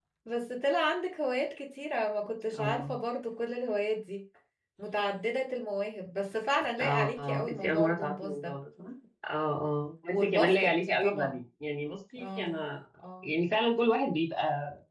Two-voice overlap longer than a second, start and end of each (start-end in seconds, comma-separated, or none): 6.8-8.6, 10.1-11.4